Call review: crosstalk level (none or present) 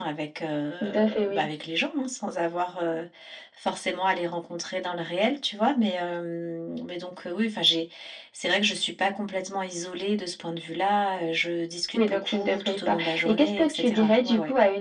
present